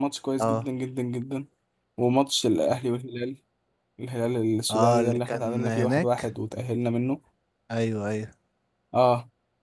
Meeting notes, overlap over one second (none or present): present